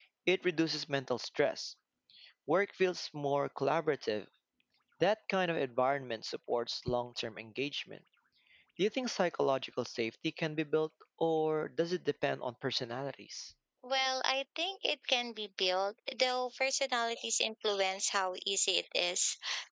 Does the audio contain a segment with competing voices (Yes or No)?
No